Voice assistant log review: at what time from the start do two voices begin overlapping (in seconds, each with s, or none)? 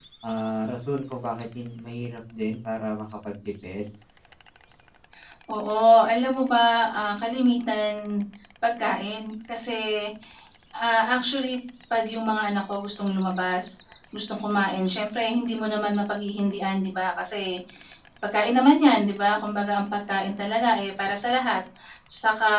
none